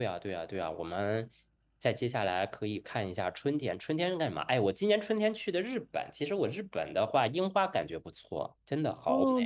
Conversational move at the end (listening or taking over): taking over